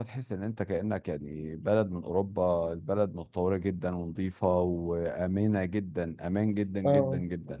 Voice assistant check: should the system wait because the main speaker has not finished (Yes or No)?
No